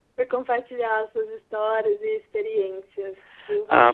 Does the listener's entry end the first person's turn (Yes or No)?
Yes